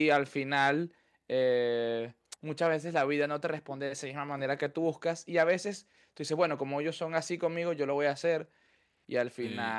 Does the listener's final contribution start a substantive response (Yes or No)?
Yes